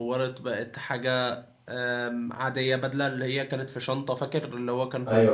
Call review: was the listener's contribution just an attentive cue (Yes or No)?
No